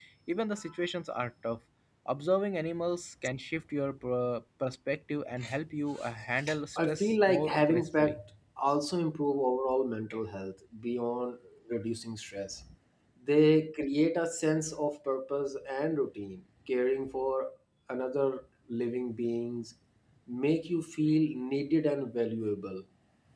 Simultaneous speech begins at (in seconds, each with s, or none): 6.8 s